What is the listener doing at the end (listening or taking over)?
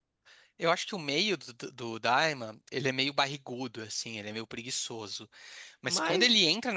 listening